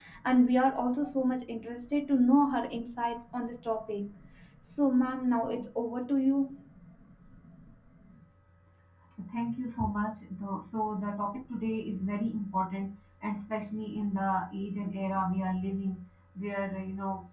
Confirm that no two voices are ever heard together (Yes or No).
Yes